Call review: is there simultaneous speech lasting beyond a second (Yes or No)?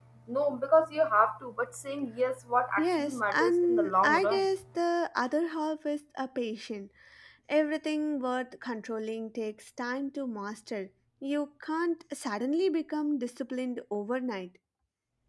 Yes